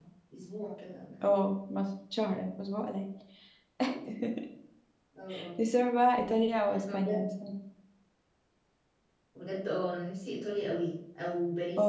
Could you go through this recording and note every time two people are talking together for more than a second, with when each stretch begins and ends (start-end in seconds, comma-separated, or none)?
none